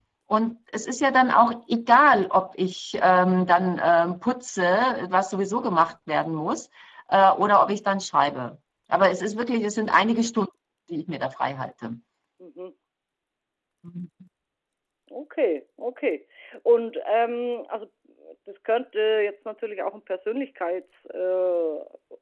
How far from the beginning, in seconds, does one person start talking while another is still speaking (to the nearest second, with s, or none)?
none